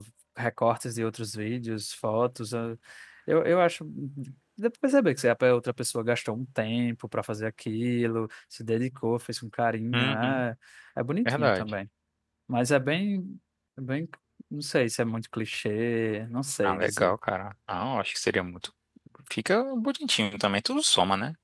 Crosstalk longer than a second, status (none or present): none